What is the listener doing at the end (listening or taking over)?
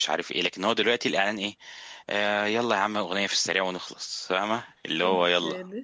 taking over